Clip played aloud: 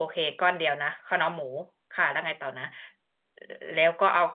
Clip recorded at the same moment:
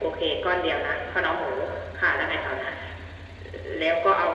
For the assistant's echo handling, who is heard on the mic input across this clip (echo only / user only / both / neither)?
echo only